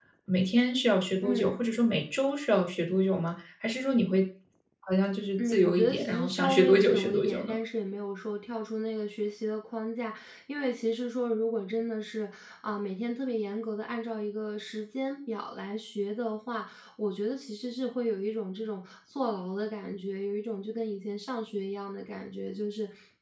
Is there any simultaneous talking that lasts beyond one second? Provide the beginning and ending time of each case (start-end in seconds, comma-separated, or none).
5.4-7.5